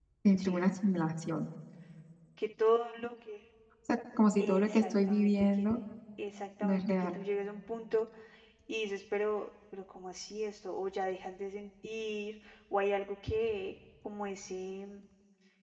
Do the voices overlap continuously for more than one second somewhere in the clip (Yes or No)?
Yes